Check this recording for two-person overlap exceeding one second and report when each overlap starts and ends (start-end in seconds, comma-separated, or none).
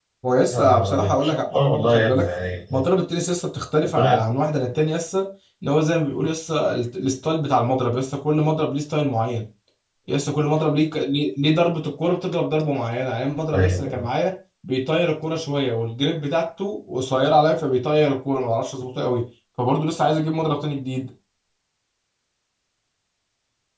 0.5-2.3